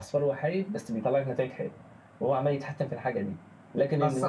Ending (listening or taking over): taking over